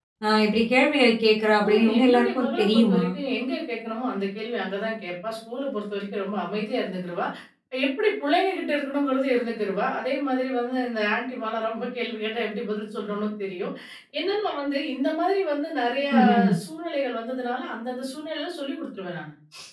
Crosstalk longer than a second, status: present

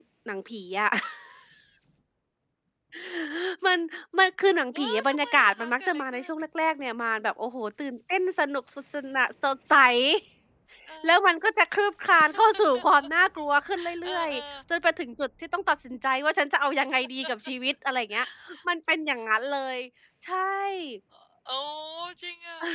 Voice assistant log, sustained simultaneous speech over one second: present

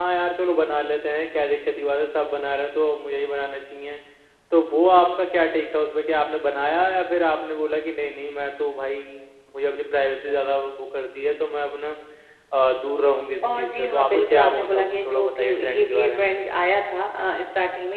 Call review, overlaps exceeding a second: present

